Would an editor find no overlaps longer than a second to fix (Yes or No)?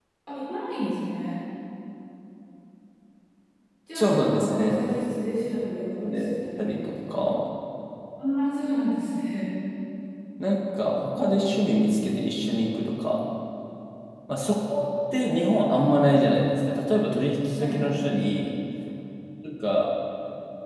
No